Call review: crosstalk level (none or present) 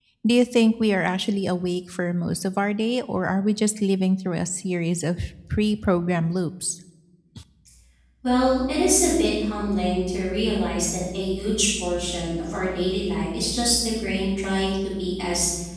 none